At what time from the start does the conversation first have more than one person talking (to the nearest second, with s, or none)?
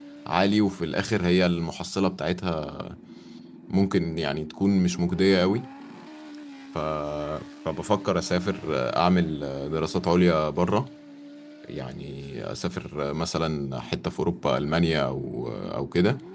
none